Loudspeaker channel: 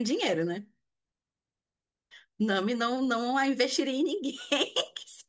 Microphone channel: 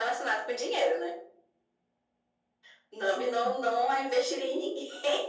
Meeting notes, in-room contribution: present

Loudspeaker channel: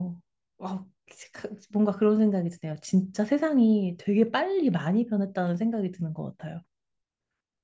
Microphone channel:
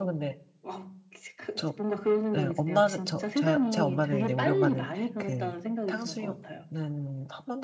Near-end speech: present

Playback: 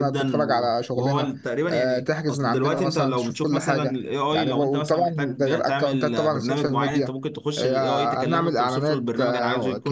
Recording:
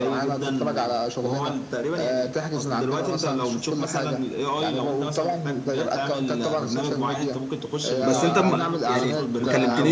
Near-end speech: present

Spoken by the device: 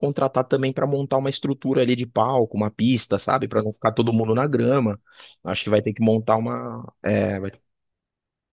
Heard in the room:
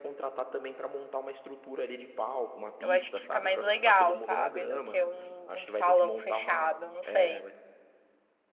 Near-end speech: present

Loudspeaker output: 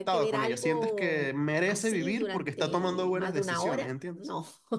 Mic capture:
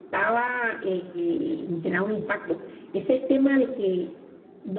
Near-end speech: present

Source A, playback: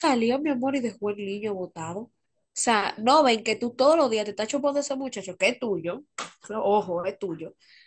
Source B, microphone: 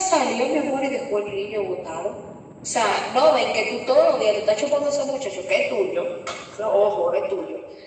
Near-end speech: none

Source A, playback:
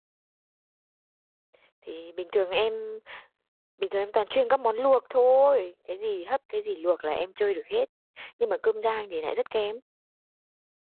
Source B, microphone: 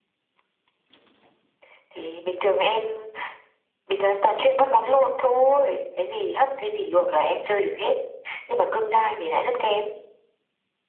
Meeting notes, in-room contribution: none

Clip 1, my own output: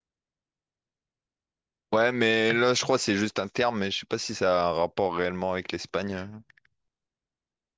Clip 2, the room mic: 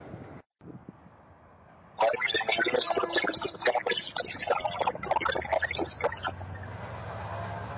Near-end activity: none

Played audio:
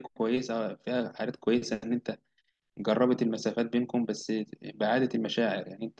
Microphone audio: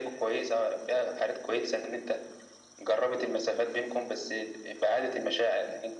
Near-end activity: none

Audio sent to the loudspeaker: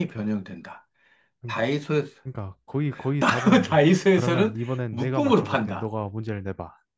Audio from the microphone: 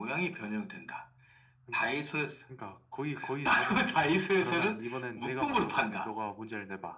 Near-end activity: none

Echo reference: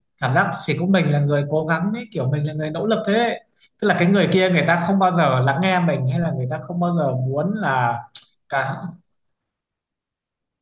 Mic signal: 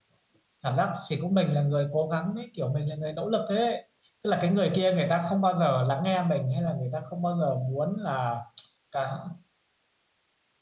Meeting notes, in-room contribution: none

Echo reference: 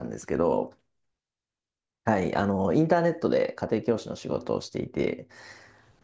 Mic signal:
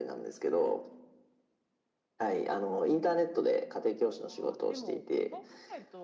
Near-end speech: present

